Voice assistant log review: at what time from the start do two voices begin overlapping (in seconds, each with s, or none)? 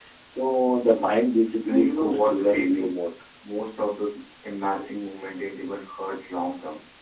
1.7 s